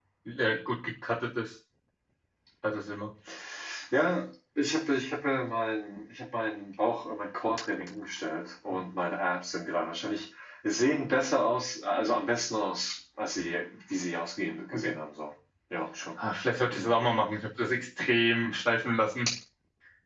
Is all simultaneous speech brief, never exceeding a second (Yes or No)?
Yes